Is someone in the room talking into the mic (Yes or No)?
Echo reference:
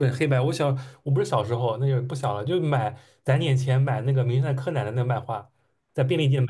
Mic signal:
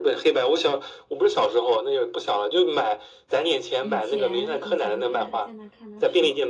Yes